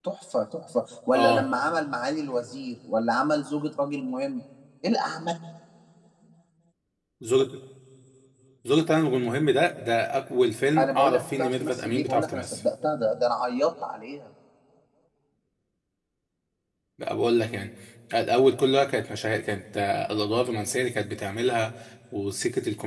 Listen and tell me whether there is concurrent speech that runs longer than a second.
Yes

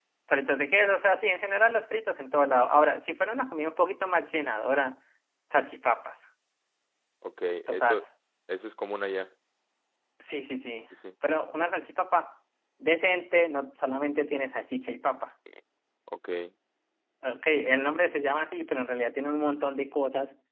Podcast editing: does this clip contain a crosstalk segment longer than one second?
No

